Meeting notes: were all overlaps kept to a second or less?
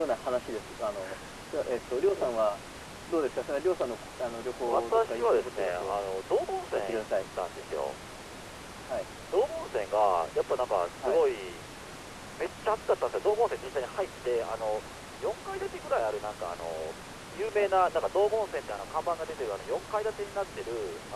No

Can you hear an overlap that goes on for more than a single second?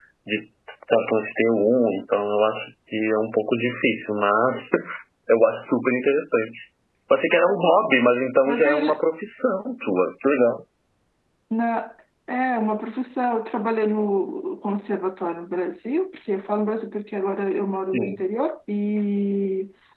No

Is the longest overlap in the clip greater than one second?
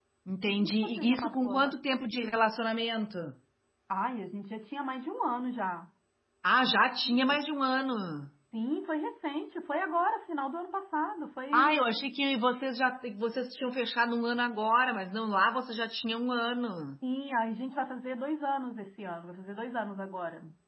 Yes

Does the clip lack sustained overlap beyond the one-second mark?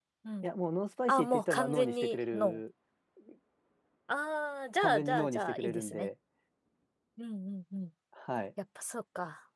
No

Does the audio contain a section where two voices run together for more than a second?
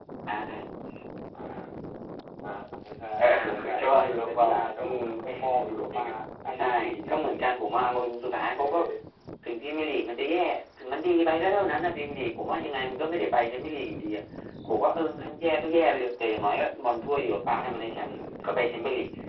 Yes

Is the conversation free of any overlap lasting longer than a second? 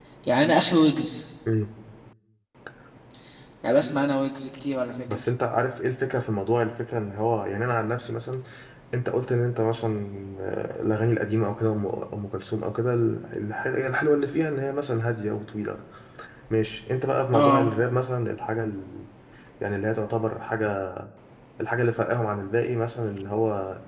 Yes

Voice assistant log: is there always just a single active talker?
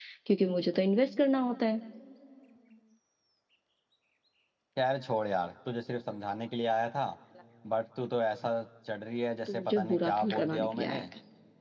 No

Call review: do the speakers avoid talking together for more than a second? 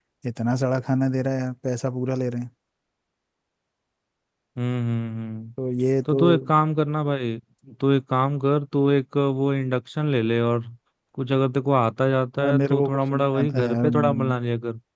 No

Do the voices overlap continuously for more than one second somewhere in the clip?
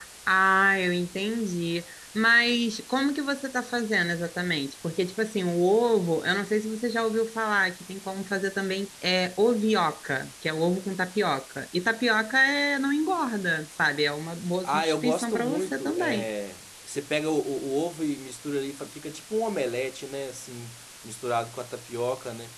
Yes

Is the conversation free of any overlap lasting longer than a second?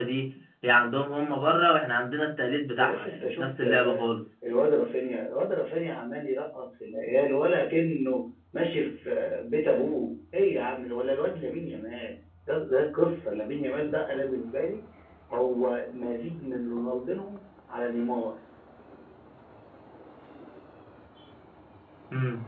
No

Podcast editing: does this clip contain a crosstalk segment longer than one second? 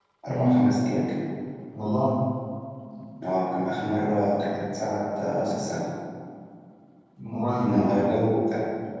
No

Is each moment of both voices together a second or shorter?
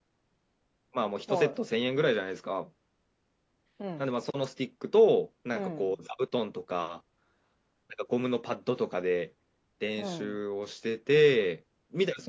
Yes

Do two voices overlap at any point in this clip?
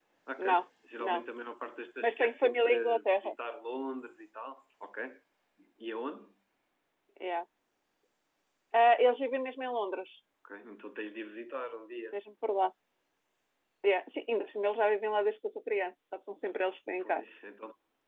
Yes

